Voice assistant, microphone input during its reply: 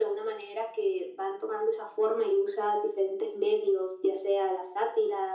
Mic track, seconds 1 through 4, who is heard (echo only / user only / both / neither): echo only